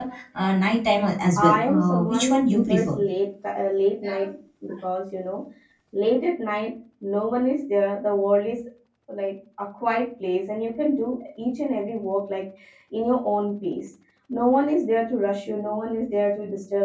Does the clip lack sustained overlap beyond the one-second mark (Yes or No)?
No